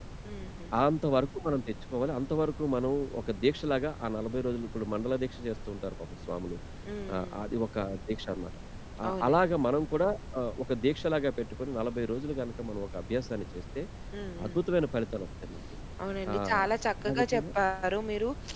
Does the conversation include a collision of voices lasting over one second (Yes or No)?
No